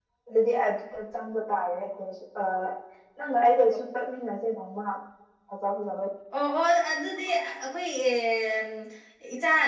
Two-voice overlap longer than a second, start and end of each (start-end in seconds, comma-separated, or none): none